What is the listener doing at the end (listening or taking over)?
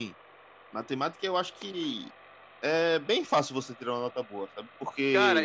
taking over